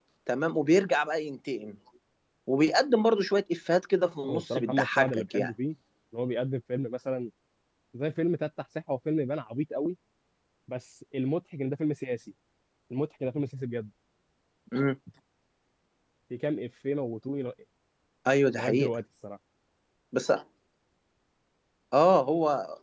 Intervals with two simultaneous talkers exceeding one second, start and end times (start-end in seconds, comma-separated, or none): 4.3-5.5